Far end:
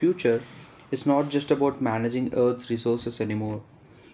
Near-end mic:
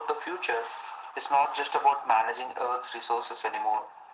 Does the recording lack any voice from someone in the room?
Yes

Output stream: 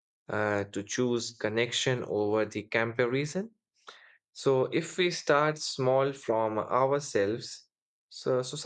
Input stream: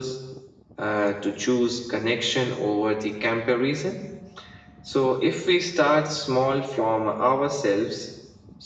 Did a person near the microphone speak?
No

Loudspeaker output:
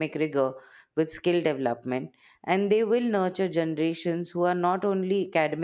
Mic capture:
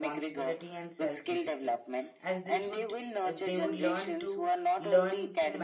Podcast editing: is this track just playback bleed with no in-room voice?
No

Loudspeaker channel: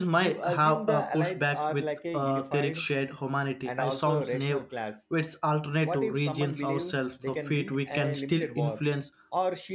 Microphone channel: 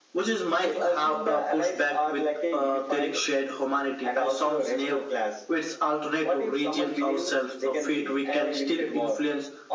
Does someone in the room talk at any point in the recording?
No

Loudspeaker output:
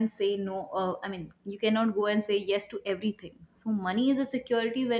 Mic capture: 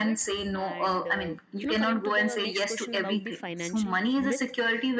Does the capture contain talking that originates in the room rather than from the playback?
Yes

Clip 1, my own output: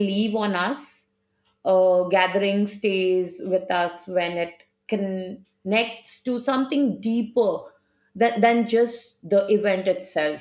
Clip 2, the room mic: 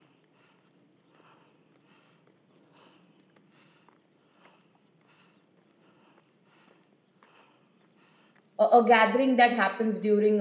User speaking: Yes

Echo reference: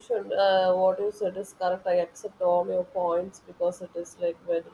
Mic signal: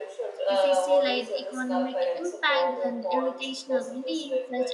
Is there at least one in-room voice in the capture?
Yes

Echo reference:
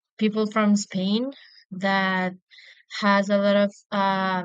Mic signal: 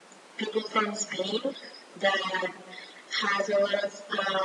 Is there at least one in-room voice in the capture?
No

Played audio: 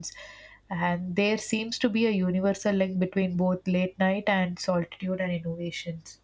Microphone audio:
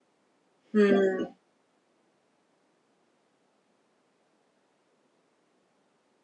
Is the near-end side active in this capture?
Yes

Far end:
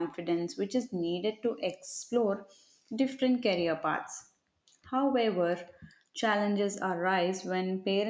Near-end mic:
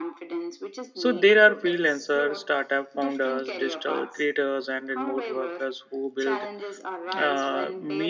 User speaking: Yes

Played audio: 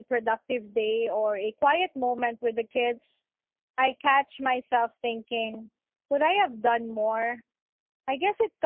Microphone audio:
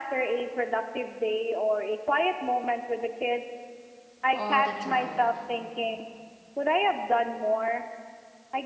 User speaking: Yes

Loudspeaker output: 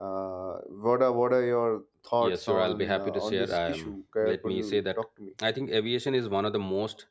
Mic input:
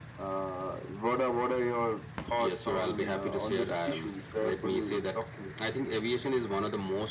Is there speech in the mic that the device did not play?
No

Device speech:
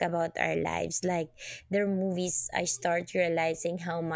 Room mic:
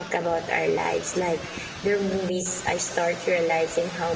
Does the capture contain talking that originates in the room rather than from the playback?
No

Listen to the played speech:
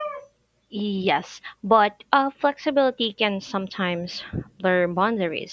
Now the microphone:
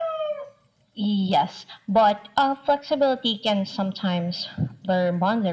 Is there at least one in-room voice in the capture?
No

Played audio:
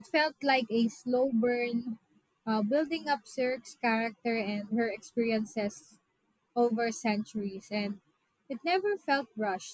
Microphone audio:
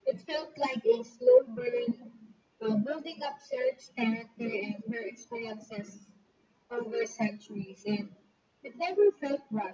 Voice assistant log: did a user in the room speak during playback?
No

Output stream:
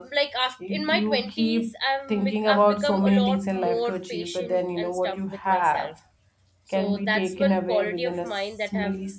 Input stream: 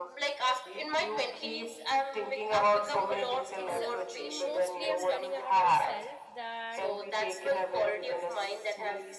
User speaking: Yes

